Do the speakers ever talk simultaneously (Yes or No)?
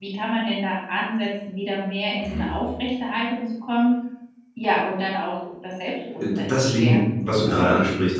Yes